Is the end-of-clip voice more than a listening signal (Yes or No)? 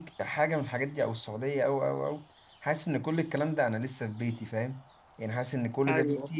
No